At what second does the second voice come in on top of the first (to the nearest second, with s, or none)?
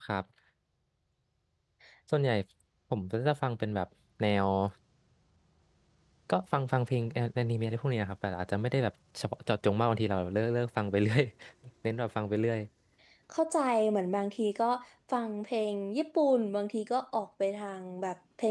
none